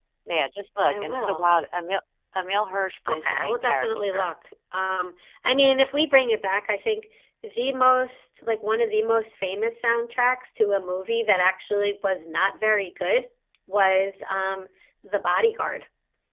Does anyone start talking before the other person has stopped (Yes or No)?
Yes